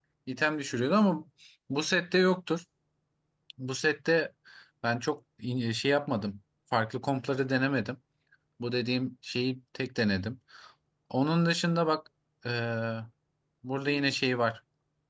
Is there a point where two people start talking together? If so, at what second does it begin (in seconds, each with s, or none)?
none